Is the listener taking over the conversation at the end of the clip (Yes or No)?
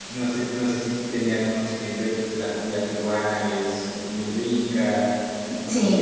No